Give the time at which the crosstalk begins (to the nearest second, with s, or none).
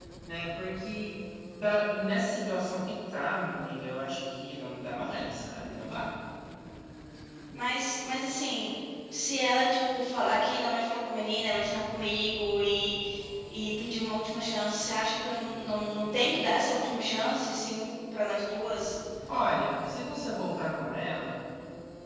none